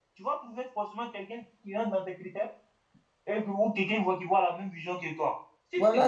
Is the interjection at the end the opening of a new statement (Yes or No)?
Yes